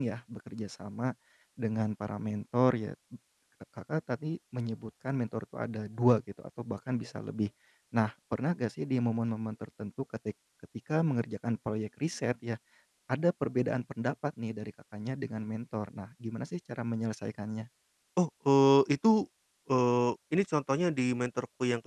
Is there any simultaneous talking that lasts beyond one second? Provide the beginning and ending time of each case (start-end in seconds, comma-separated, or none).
none